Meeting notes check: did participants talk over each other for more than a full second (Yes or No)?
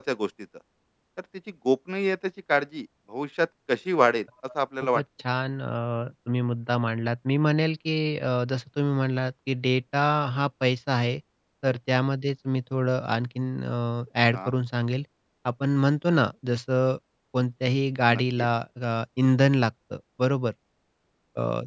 No